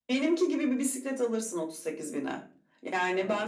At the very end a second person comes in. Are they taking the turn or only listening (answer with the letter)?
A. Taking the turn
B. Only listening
B